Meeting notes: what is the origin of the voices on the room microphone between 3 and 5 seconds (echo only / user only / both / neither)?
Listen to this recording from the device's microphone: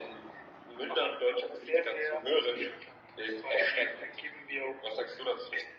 echo only